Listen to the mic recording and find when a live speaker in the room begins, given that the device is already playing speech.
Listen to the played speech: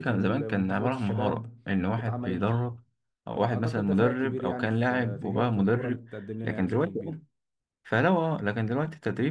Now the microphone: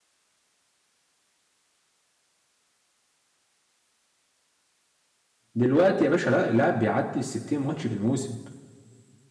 5.5 s

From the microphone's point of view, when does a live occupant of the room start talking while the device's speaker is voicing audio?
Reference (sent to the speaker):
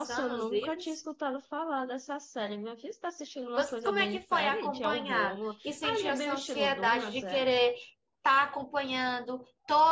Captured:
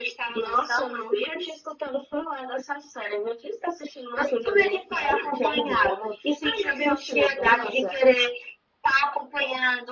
none

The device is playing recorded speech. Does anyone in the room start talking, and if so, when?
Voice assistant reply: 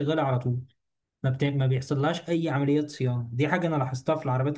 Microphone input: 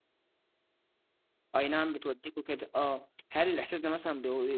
1.6 s

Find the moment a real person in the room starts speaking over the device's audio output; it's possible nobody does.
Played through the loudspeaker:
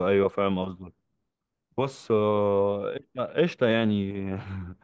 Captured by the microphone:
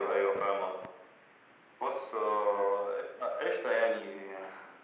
none

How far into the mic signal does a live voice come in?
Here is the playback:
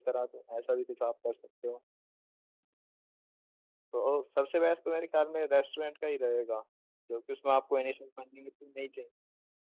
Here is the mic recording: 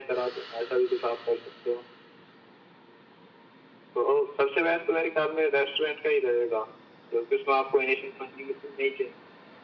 none

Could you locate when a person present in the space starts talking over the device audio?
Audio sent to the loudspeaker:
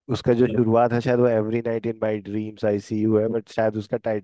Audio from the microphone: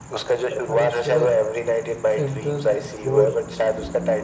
0.7 s

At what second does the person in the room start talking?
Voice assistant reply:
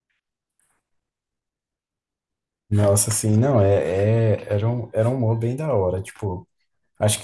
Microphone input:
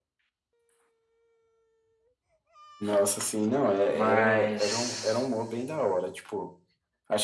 3.9 s

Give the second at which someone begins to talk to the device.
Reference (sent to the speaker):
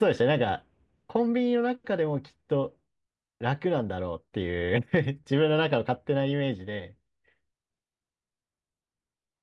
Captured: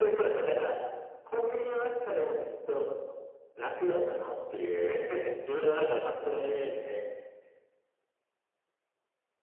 none

